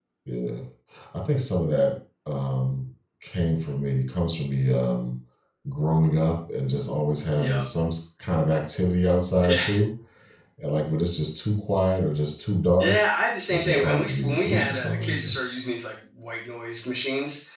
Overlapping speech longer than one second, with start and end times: 13.5-15.3

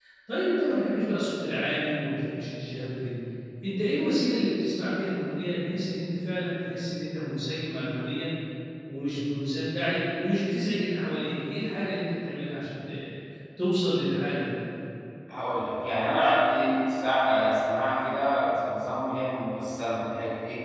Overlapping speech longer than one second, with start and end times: none

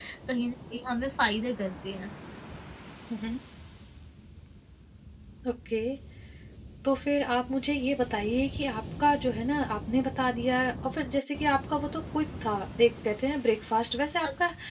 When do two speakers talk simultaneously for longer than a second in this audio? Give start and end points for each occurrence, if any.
none

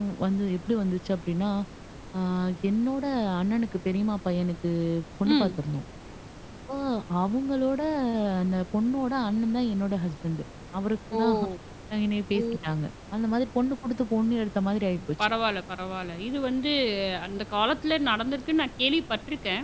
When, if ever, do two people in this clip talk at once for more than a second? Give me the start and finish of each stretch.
none

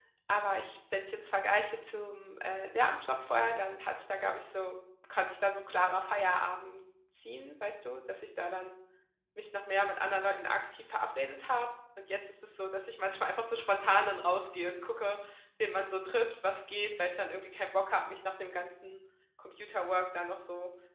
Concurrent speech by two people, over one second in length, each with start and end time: none

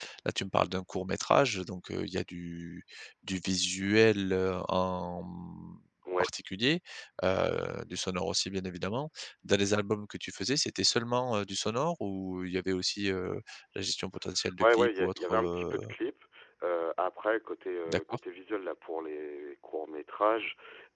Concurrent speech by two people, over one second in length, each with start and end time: 14.6-15.9

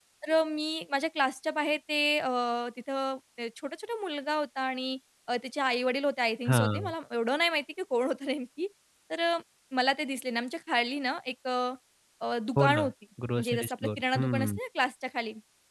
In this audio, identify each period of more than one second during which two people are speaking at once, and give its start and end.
13.4-14.6

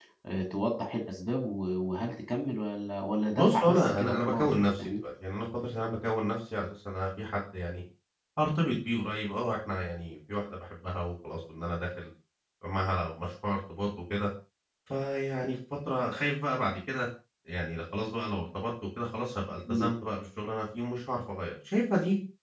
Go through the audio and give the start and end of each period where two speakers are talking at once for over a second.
3.4-5.0

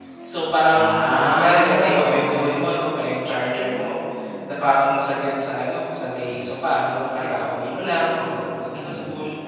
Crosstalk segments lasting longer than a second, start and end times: 1.3-2.6

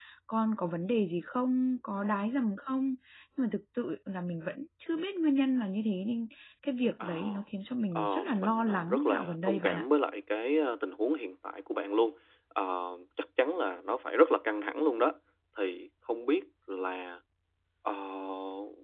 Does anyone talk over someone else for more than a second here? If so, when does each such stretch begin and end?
8.0-9.8

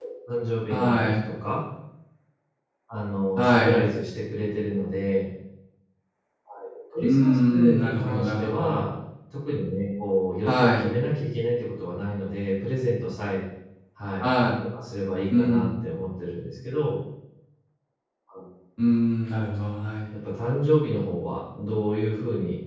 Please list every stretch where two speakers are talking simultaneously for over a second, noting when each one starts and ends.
7.0-8.8

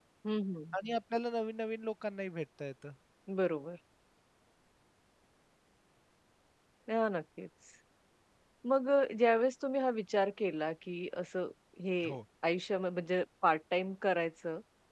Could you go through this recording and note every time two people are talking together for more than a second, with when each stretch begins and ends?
none

